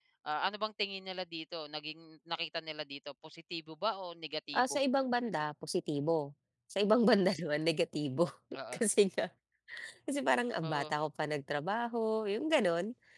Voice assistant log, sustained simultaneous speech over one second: none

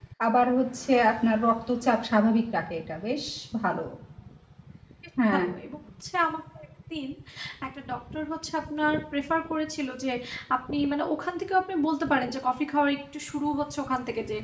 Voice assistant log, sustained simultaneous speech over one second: none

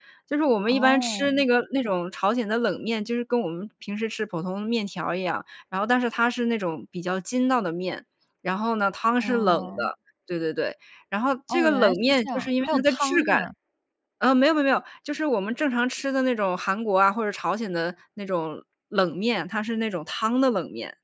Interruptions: present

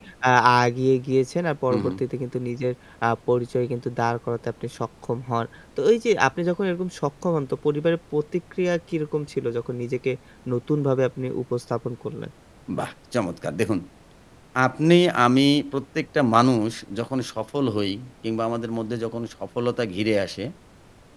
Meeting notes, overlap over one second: none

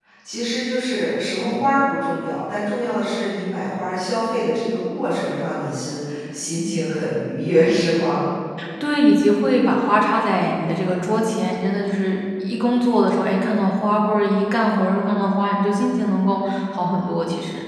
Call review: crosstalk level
none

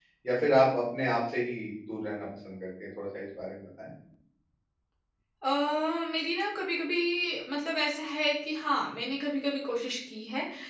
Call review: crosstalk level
none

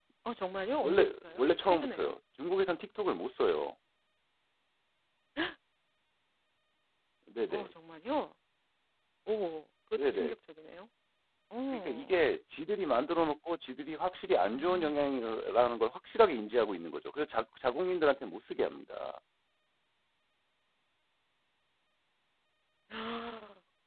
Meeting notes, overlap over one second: present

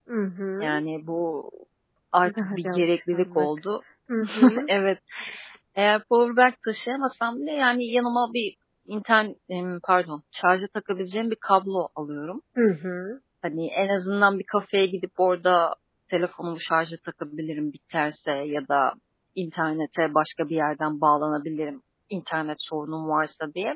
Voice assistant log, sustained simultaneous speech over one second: present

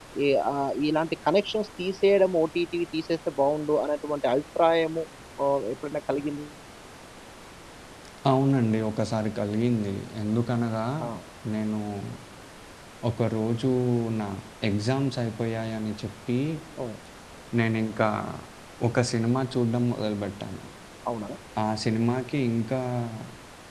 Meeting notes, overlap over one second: none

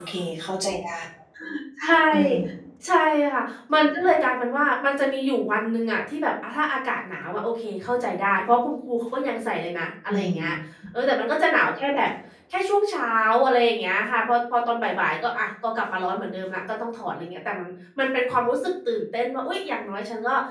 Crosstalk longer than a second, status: none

